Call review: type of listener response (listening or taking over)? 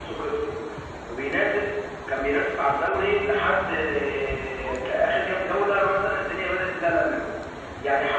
listening